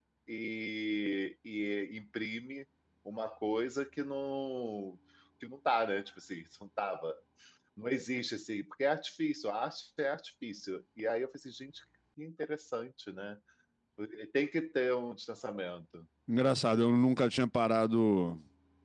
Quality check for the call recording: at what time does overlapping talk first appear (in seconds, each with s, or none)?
none